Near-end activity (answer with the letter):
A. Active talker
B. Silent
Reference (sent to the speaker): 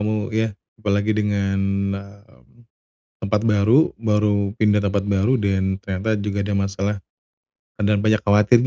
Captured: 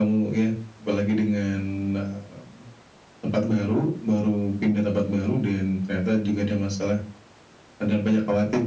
B